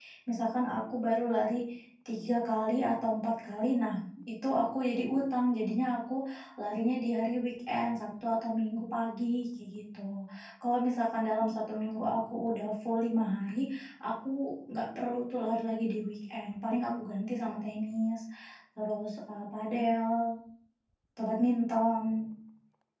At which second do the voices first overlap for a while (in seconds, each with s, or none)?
none